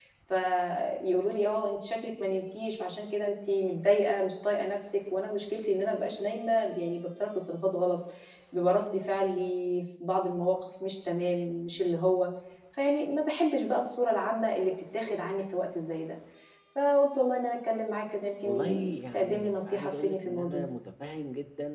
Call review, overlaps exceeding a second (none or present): present